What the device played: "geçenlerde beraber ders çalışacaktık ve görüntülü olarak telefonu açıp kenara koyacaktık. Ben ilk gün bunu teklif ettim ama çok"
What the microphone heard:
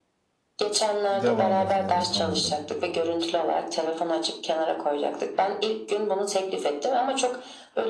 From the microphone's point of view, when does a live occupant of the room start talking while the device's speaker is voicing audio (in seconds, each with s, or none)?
1.1 s